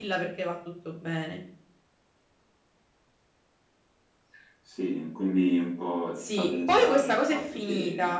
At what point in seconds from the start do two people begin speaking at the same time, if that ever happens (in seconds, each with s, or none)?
6.2 s